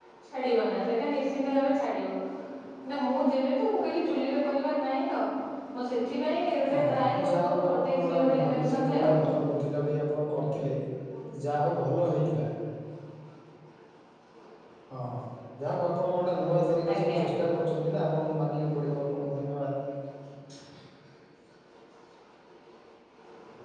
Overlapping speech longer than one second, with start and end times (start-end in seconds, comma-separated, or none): 6.7-9.2